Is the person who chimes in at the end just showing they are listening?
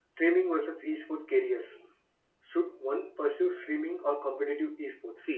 No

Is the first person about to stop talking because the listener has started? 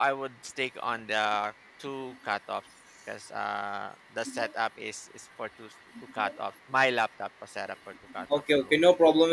Yes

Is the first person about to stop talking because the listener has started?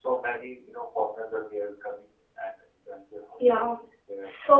Yes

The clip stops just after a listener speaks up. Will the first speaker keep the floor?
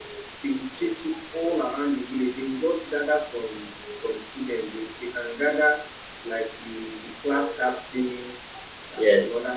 Yes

